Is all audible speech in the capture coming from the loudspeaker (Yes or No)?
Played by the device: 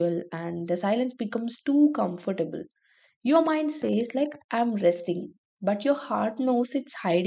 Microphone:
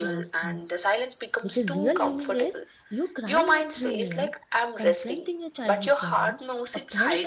No